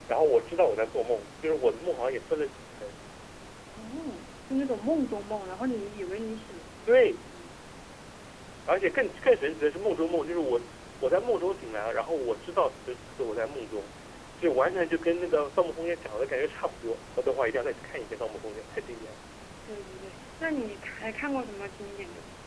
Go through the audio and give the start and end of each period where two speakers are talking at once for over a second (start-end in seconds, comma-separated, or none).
none